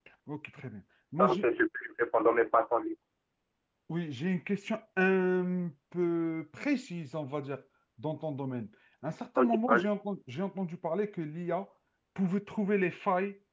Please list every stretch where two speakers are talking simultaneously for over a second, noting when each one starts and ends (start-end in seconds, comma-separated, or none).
none